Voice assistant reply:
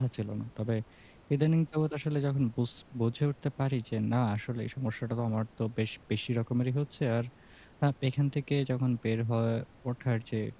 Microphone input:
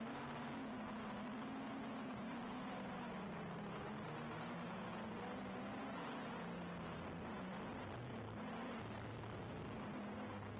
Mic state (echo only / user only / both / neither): neither